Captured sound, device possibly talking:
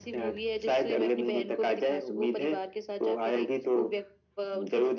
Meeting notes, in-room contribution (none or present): none